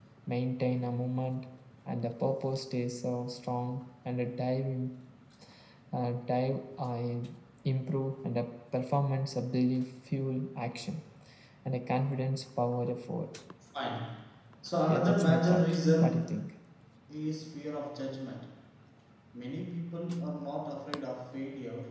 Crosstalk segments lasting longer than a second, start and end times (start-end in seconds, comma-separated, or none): 14.9-16.4